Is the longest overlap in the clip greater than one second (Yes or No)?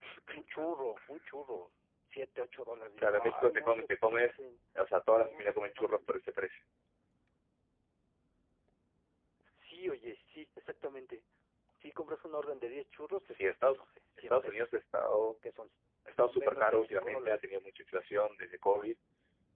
Yes